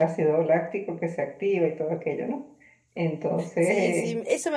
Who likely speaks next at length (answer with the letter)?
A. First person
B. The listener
B